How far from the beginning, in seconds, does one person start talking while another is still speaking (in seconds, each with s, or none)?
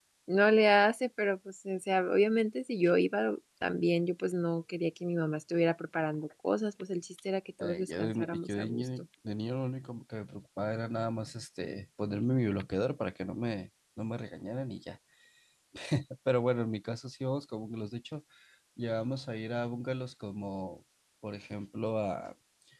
7.6 s